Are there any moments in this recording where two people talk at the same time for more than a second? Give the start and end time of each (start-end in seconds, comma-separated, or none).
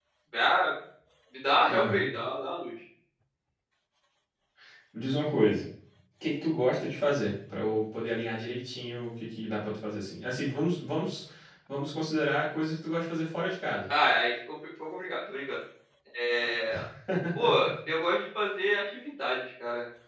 none